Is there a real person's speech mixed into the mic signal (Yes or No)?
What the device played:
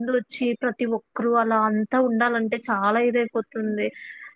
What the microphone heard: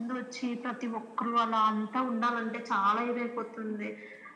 No